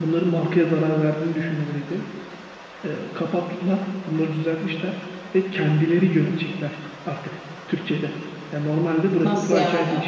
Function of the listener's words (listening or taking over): listening